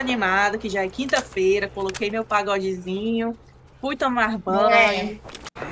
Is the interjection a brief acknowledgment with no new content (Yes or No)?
Yes